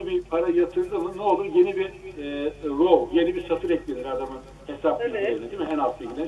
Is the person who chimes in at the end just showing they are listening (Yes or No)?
Yes